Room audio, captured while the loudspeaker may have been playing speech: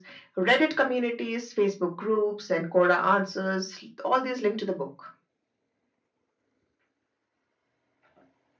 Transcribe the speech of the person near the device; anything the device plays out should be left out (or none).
none